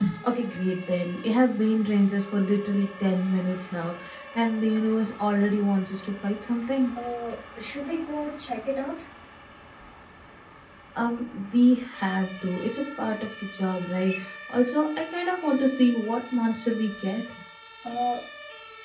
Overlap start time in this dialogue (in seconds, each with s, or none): none